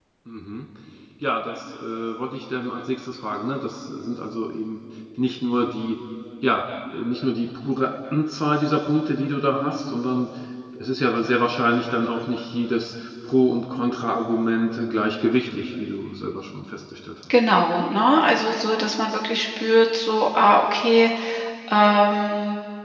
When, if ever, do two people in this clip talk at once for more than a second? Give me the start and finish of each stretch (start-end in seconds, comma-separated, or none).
none